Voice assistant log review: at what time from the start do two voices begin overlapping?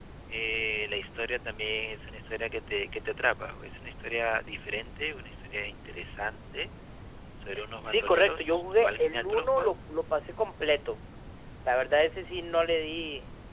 8 s

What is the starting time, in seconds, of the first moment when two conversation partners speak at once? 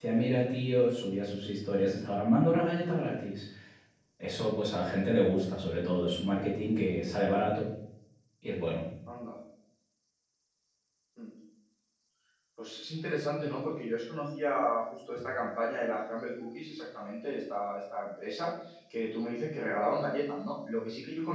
none

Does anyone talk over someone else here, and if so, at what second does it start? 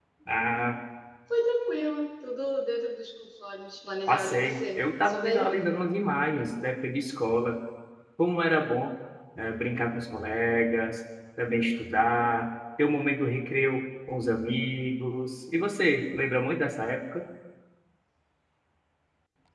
4 s

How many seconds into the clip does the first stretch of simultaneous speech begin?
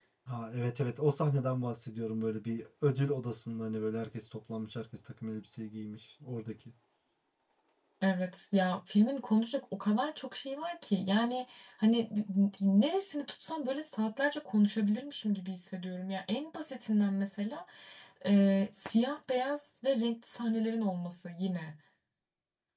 none

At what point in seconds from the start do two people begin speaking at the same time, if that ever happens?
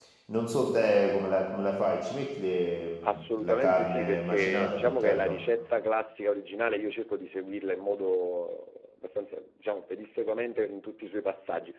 3 s

